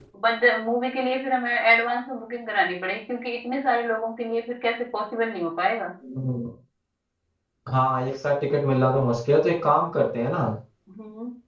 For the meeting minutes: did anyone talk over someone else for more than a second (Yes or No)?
No